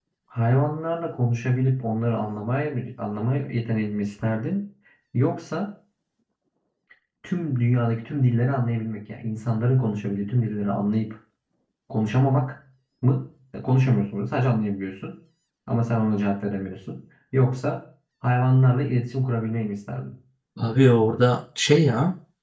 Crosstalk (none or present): none